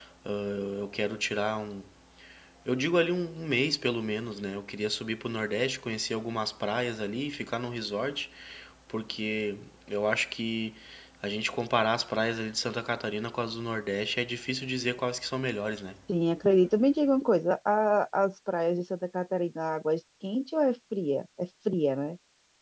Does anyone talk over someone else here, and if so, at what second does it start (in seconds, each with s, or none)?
none